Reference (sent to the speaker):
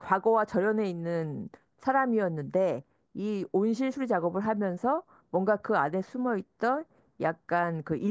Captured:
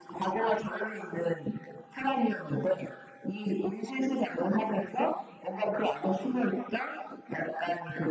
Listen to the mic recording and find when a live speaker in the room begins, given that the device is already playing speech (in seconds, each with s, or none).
none